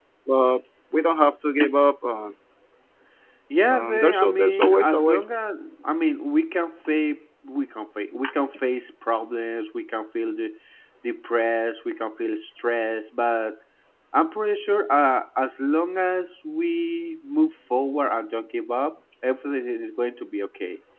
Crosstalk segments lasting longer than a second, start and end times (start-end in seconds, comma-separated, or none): 3.7-5.3